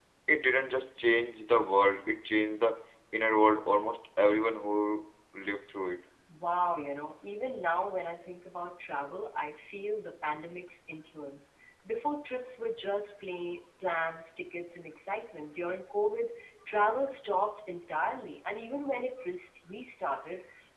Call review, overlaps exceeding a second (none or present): none